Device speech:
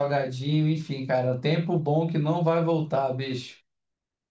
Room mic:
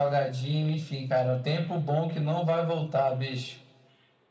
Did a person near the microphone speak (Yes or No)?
No